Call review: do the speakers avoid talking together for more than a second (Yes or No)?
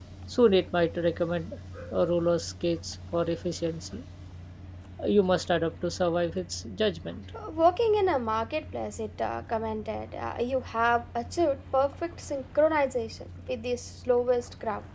Yes